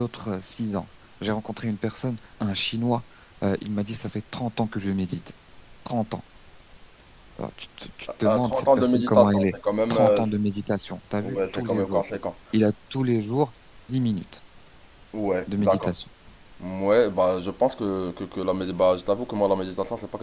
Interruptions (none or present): present